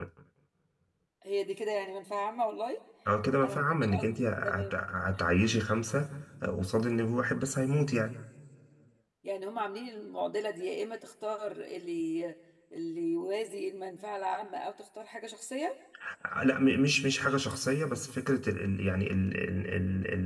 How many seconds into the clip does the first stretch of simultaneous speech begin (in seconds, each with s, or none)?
3.4 s